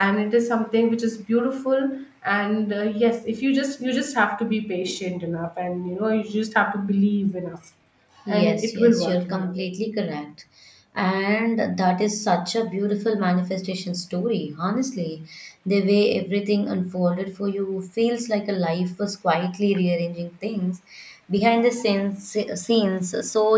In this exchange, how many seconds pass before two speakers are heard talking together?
8.3 s

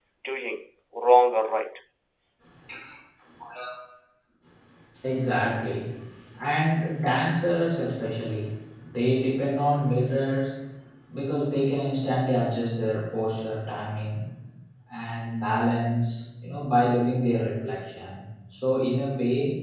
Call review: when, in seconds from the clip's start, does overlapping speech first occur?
none

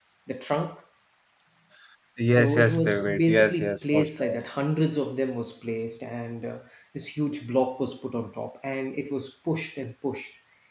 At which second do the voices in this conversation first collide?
2.4 s

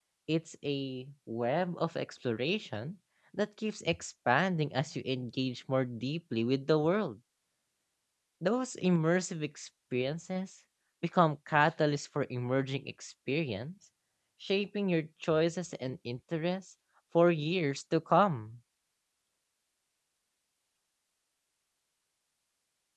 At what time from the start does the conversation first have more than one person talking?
none

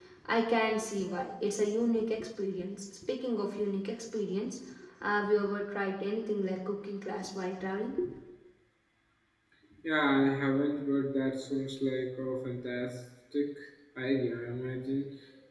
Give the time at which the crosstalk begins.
none

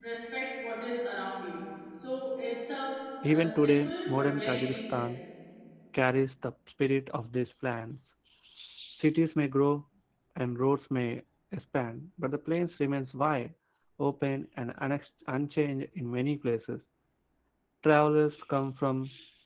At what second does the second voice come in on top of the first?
3.2 s

